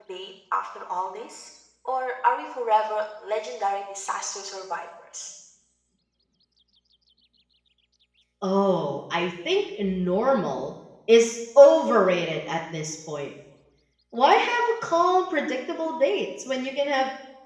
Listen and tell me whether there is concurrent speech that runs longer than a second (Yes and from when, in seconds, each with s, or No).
No